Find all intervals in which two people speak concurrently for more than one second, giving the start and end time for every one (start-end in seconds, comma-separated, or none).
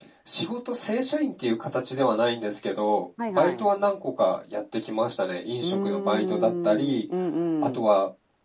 5.6-7.0